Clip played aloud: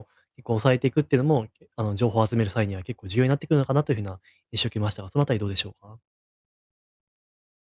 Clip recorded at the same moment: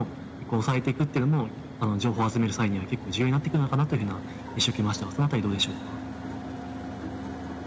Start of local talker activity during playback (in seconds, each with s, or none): none